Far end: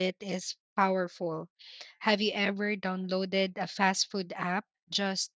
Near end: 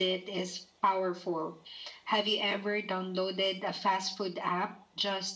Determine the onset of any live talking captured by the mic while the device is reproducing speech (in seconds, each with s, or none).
none